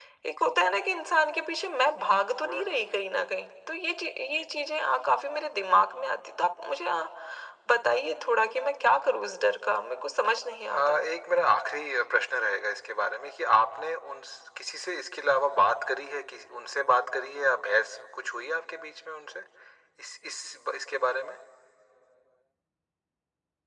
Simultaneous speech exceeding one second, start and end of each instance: none

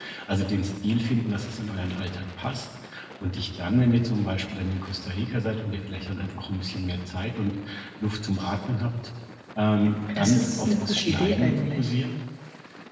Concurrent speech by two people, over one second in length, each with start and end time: 10.2-11.9

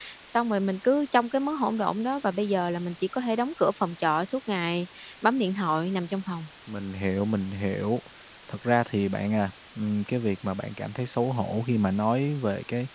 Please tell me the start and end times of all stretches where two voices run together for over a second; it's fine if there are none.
none

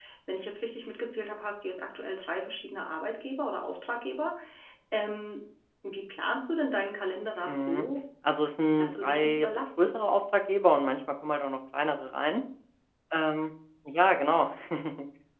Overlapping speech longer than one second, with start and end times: 8.8-10.1

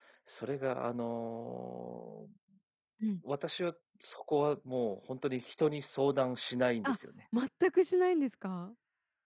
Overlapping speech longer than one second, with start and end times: none

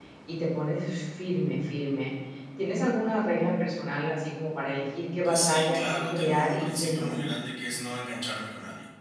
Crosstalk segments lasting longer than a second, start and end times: 5.2-7.2

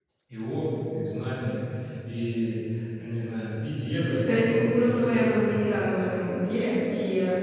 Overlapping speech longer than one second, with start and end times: 4.2-5.5

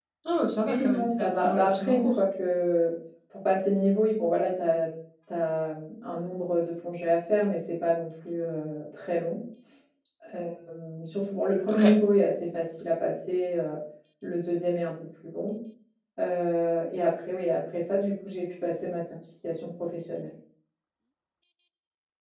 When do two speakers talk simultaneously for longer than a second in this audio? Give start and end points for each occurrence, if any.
0.6-2.2

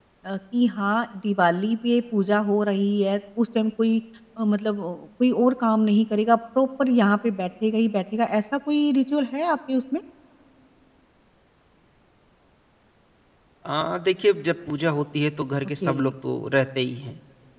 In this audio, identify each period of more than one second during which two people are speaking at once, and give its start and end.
none

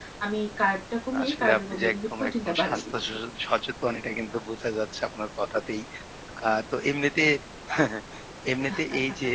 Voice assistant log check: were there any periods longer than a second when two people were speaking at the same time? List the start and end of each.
1.2-3.1

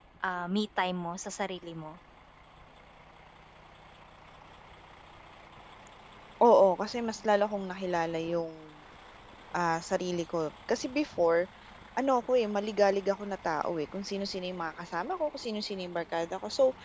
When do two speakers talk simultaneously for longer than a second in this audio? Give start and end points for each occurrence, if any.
none

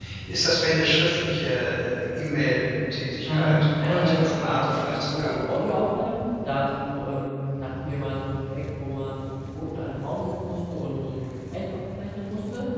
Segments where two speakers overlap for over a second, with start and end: 3.2-5.3

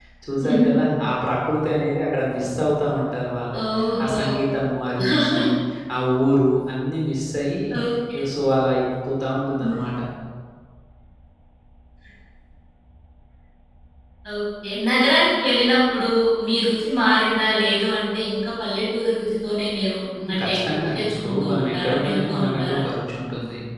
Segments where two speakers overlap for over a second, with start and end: 20.3-22.8

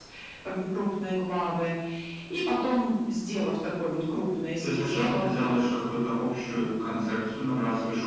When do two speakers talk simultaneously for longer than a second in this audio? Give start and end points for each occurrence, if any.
4.6-5.9

